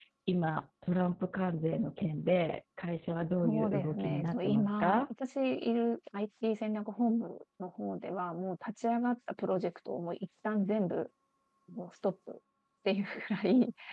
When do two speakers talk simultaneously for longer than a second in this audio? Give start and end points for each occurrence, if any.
3.4-5.0

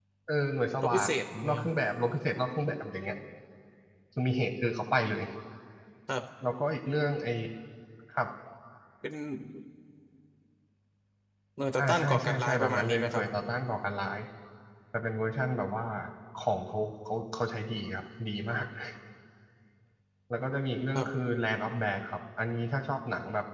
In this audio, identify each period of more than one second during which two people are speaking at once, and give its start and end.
11.8-13.2

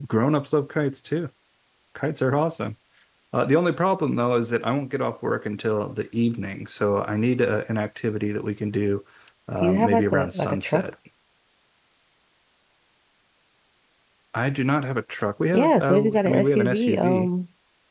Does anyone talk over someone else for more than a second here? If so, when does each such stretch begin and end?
9.6-10.8, 15.5-17.3

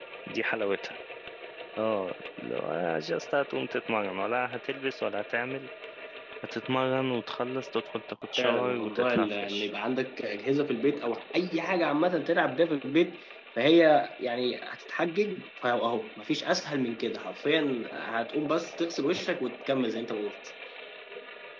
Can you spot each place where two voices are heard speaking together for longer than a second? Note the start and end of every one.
8.4-9.7

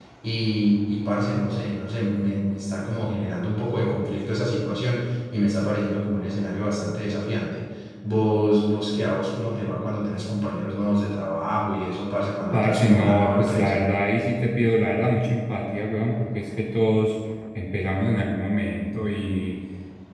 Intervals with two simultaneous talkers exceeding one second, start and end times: 12.5-13.8

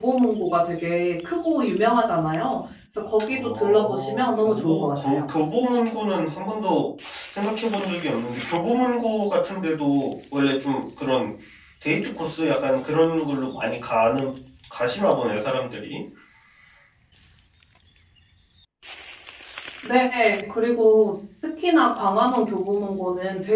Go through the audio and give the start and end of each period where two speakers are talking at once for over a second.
3.3-5.2

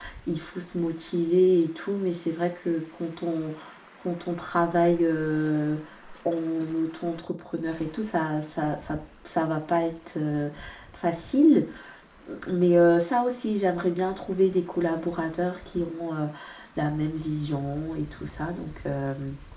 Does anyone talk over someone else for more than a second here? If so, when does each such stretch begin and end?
none

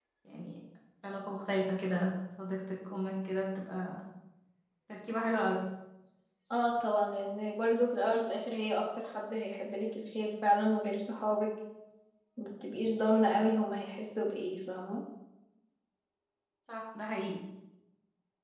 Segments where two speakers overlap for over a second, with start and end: none

